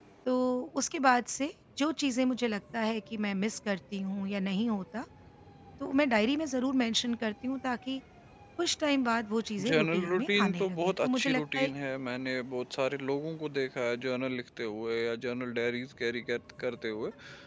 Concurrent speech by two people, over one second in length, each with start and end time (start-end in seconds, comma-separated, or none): 9.7-11.7